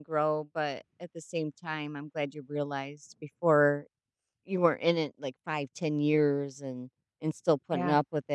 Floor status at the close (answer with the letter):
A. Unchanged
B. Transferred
A